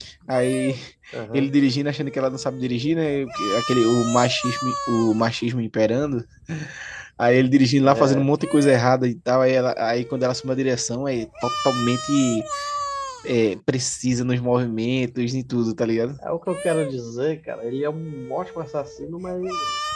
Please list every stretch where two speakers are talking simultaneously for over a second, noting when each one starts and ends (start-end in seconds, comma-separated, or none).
none